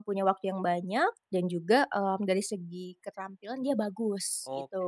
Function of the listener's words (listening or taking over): taking over